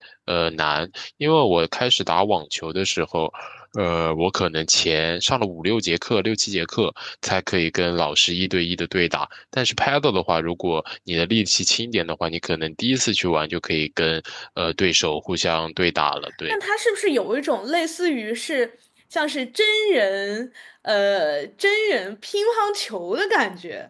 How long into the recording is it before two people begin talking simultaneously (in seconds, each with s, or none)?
none